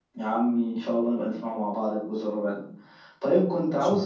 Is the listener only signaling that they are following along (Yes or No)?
Yes